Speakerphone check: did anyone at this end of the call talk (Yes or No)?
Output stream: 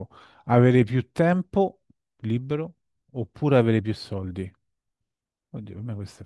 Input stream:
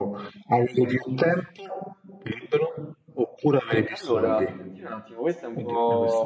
Yes